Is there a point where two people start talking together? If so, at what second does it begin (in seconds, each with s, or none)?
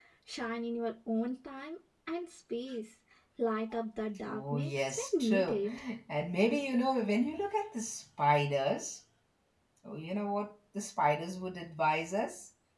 4.3 s